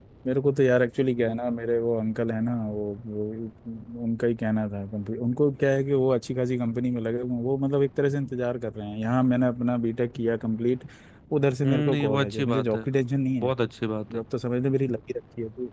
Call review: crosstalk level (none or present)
present